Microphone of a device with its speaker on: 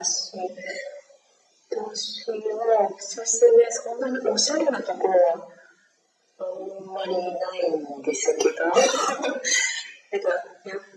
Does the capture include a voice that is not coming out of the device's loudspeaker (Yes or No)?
No